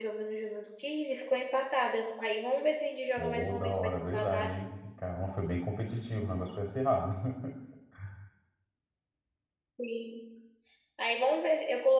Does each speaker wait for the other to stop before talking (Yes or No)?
No